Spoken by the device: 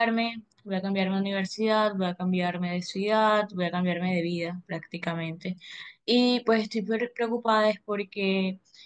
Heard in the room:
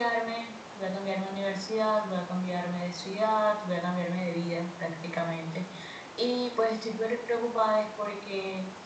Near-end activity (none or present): none